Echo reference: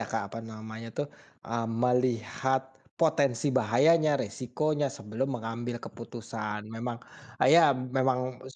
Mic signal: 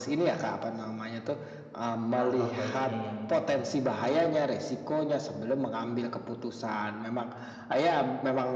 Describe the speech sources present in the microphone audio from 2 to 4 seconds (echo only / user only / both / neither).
both